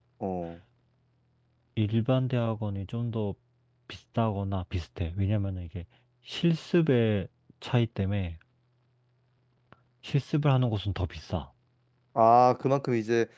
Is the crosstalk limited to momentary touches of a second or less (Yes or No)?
Yes